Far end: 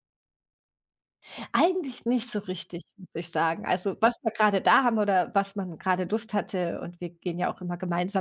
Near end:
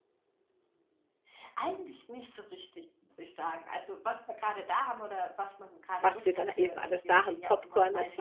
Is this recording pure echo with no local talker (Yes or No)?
No